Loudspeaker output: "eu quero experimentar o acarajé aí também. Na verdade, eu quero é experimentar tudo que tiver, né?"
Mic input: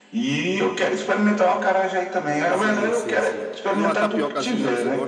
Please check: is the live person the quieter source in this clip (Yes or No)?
Yes